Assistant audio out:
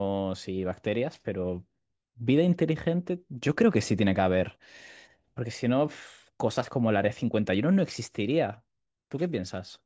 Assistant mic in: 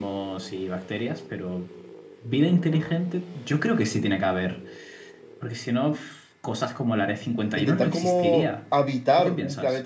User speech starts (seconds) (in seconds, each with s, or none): 7.5 s